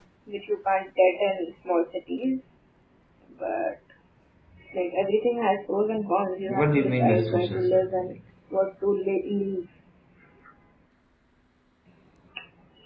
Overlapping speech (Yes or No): Yes